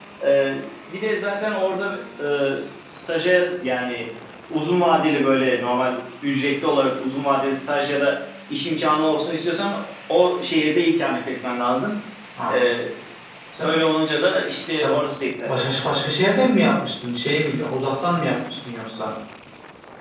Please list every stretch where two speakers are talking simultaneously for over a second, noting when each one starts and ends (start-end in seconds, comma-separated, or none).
none